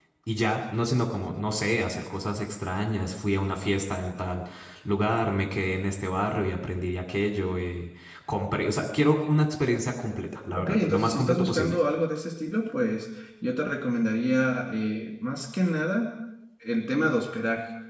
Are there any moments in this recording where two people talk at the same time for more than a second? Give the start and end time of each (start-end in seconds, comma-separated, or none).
10.5-11.8